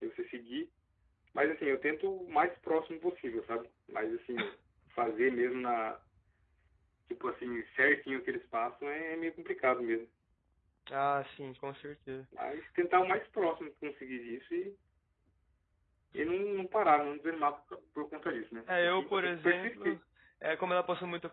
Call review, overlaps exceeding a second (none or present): present